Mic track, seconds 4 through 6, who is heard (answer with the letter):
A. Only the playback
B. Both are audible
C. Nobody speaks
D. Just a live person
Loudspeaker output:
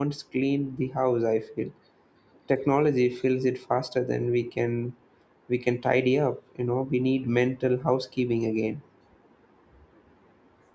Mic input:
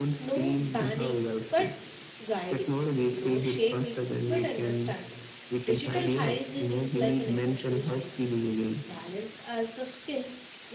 B